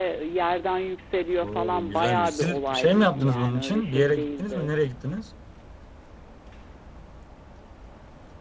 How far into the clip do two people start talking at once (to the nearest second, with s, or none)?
1 s